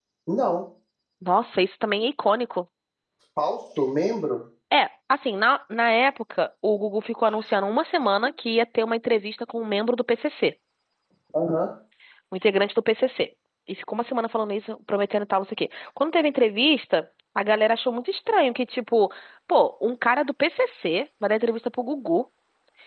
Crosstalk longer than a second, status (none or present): none